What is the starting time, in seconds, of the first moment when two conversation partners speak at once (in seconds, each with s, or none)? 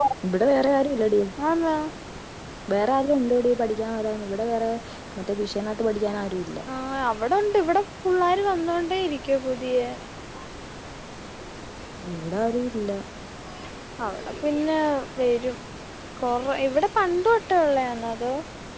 none